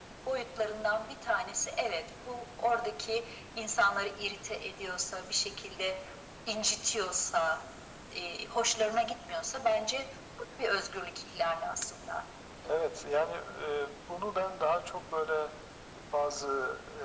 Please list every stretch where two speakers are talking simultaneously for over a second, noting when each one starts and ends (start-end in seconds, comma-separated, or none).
none